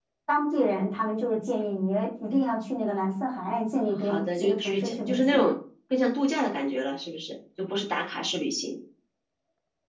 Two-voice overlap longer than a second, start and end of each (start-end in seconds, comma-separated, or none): 3.9-5.5